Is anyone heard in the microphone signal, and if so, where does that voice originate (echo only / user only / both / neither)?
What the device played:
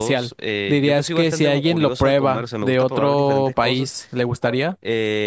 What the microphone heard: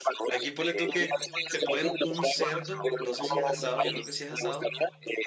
both